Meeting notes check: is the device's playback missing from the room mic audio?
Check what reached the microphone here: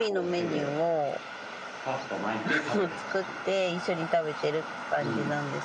No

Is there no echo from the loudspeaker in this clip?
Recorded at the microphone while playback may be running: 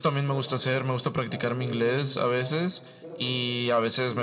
No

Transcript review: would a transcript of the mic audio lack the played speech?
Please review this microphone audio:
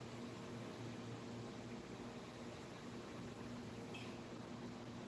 Yes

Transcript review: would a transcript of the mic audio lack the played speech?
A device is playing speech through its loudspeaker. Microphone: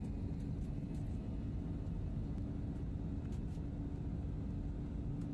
Yes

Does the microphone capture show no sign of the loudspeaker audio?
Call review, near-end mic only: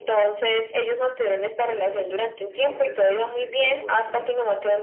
No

